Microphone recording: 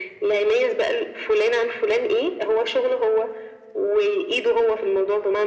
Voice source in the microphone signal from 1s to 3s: echo only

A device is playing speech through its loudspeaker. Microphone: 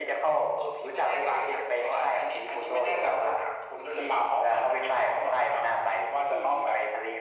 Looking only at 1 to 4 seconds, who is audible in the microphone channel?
echo only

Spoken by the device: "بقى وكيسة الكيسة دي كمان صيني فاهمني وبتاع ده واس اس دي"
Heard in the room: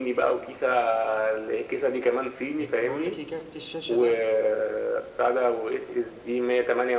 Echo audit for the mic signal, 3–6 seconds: both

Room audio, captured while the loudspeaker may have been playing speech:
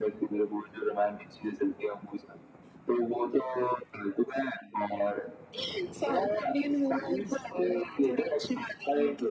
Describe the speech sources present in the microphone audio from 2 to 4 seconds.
echo only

